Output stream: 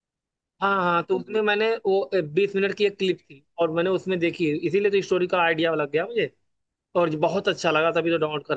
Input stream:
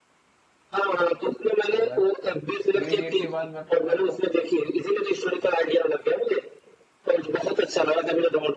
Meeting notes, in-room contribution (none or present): present